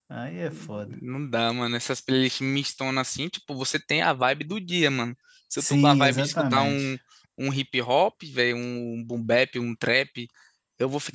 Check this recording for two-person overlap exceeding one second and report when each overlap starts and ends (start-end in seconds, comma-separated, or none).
5.6-6.9